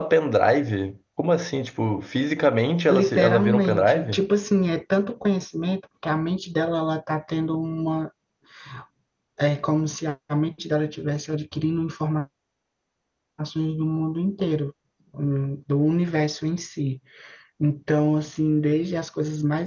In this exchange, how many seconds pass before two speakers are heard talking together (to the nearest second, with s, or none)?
3 s